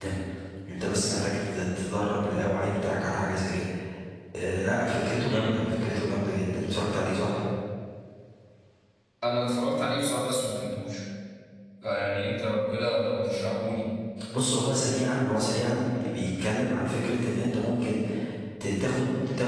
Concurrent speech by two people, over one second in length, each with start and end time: none

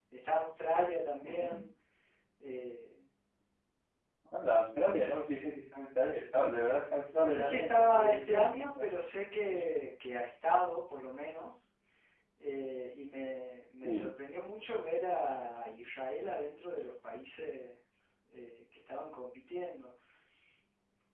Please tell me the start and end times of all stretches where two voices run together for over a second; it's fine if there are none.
7.2-8.9

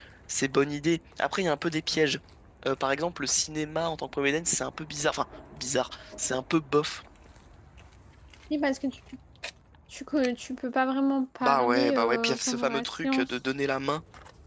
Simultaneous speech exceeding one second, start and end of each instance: 11.4-13.3

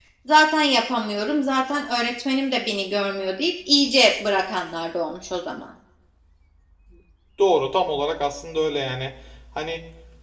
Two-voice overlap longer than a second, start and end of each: none

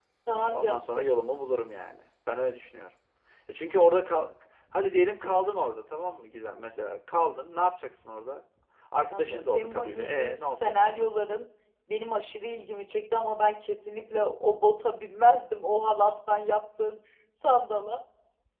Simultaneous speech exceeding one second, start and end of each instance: 9.1-11.1

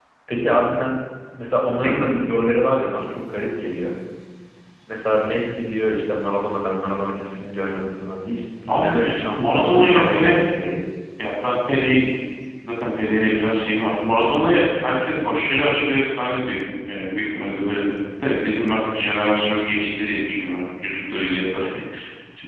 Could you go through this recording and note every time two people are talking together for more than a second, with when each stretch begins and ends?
8.7-10.5

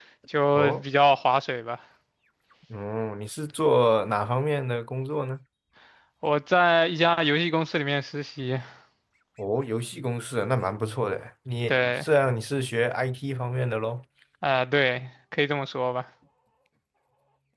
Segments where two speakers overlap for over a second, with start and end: none

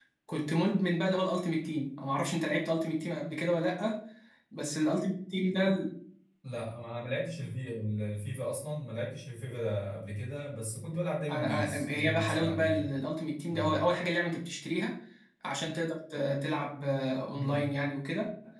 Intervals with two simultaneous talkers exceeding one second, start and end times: 11.3-12.9

